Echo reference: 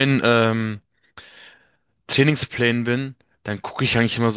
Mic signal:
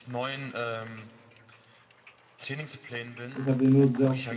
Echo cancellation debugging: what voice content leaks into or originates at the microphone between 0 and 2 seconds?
echo only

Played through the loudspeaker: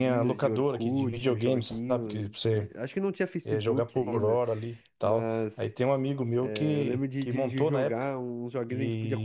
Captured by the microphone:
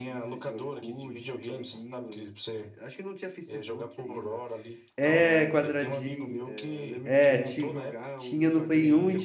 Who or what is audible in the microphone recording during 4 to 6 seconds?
both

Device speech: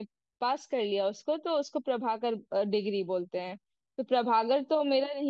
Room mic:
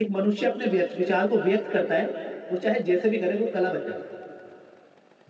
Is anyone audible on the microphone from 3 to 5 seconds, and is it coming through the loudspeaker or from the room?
user only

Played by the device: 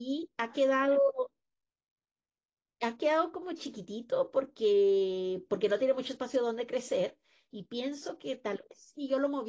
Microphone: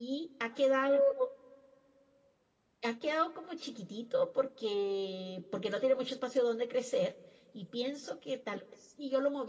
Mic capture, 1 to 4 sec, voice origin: echo only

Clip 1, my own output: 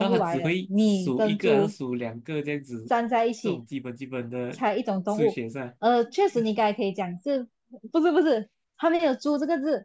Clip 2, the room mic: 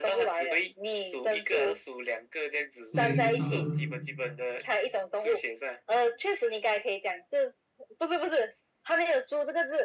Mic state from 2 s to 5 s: both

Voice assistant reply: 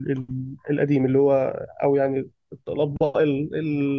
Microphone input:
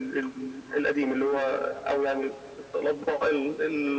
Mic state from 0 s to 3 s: echo only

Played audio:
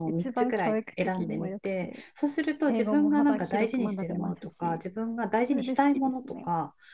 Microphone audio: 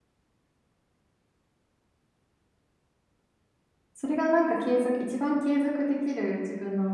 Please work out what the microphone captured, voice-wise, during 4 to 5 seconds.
user only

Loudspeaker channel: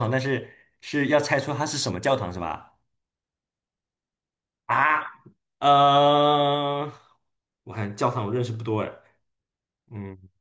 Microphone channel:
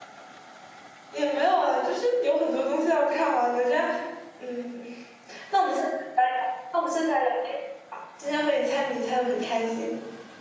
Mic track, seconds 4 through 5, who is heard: user only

